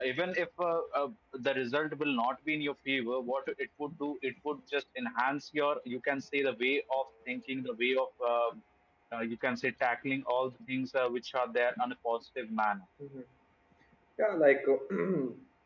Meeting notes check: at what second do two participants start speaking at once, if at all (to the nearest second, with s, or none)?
none